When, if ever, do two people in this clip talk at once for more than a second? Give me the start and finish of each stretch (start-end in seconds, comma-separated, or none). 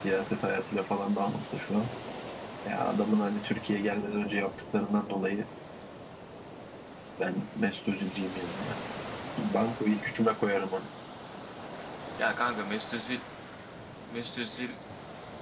none